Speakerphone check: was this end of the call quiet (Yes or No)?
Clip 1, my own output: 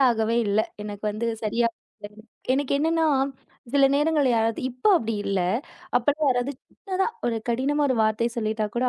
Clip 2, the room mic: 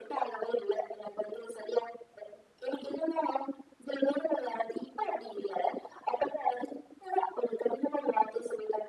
Yes